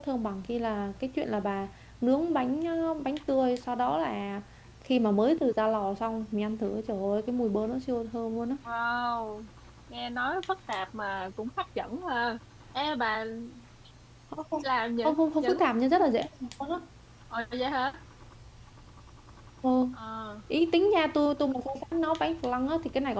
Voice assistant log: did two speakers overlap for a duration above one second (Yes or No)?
No